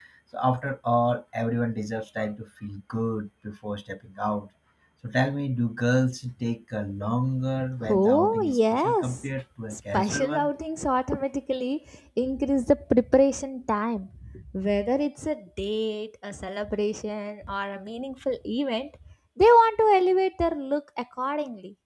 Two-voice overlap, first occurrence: 7.8 s

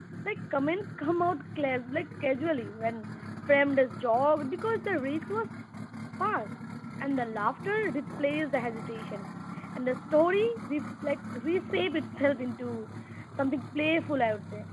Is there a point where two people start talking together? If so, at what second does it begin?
none

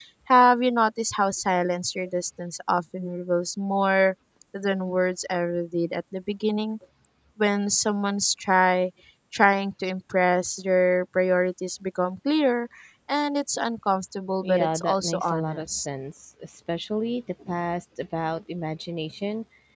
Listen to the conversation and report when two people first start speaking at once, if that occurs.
14.4 s

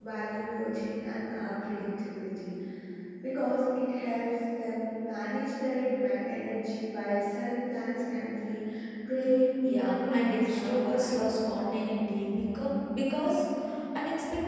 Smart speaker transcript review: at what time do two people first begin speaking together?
9.7 s

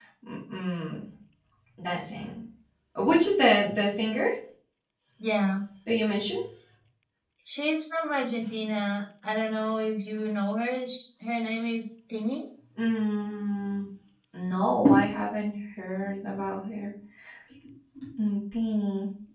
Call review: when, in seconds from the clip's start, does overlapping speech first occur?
none

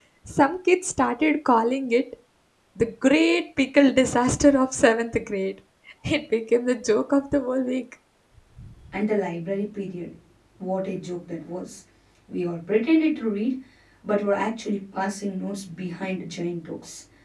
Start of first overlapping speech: none

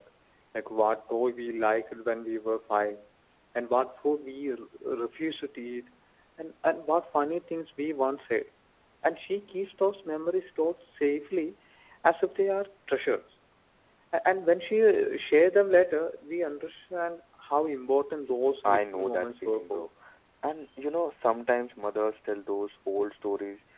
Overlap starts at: 18.6 s

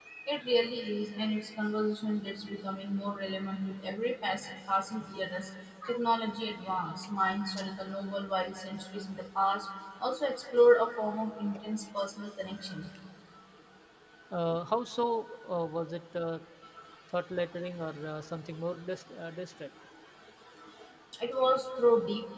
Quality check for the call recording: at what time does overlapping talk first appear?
none

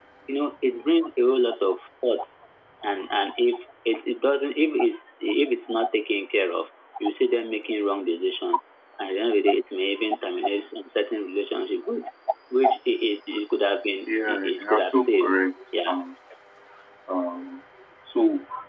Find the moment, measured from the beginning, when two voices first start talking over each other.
14.1 s

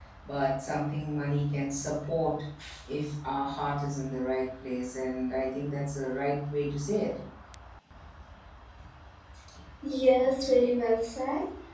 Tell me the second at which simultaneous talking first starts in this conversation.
none

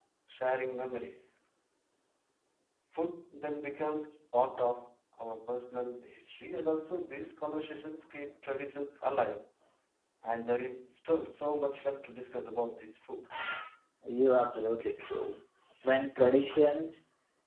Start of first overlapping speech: none

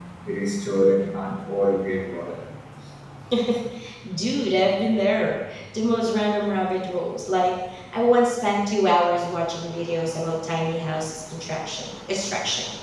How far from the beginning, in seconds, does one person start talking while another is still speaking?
none

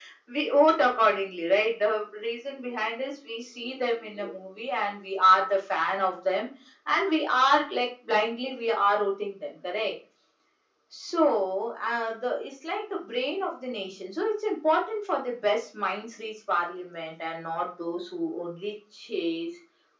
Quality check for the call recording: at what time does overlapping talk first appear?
none

